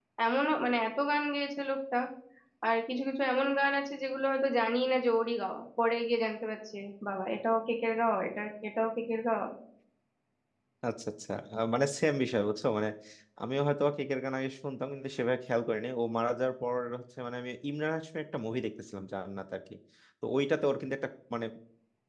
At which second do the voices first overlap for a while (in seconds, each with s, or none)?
none